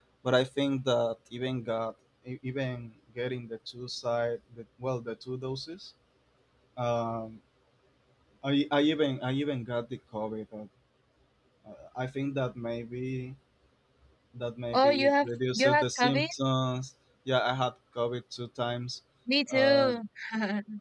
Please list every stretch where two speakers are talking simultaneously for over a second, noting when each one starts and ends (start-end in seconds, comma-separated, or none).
14.7-16.3